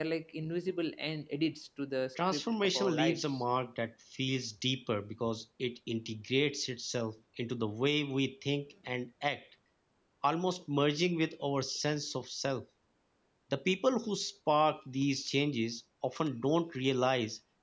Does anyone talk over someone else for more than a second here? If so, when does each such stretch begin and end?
2.1-3.4

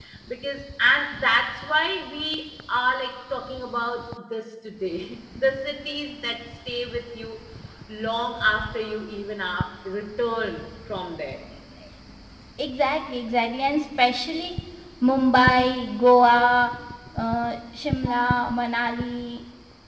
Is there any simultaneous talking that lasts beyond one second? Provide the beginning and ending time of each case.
none

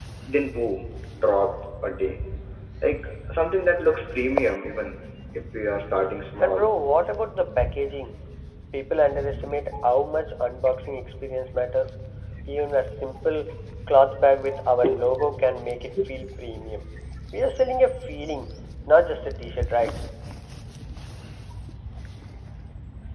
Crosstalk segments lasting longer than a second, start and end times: none

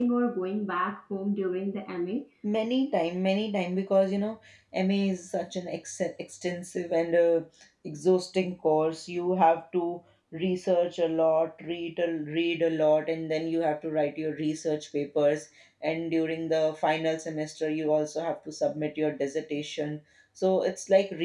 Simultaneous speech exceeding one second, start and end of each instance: none

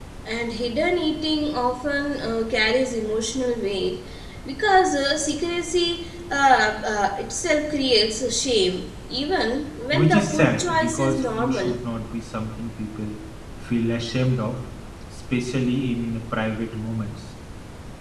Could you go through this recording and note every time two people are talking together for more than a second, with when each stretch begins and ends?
9.9-11.8

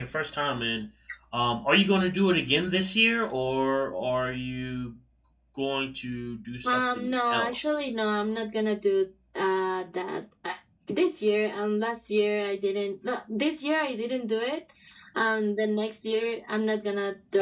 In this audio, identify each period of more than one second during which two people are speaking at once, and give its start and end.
6.6-7.9

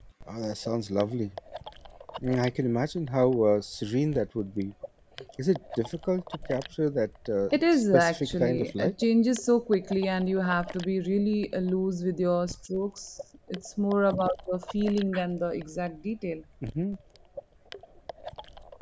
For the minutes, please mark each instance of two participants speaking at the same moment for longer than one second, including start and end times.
7.5-8.9

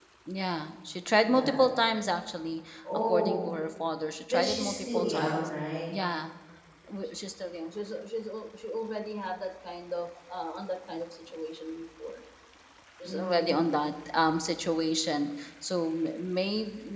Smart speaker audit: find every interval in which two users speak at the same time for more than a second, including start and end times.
4.3-5.5

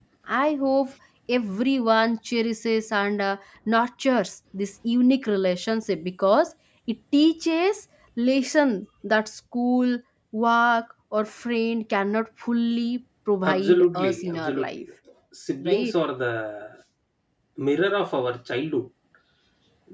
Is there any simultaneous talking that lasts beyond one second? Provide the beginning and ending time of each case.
13.4-14.8

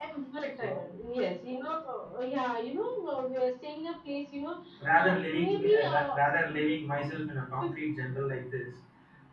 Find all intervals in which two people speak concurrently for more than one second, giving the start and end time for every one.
4.9-6.2

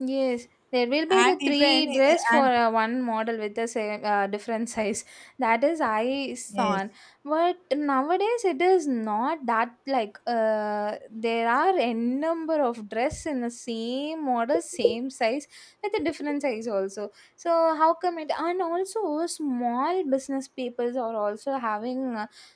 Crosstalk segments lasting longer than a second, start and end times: 1.1-2.5

